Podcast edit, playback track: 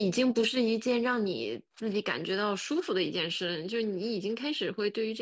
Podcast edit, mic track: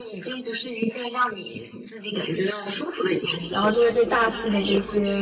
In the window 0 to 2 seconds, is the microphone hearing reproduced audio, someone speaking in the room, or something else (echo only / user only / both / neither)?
echo only